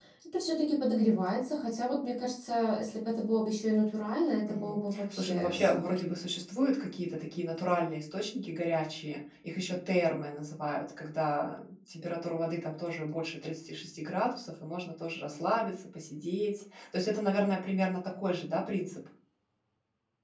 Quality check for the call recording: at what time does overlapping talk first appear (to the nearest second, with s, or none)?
4 s